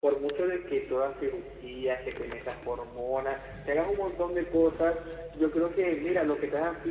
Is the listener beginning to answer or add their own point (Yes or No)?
No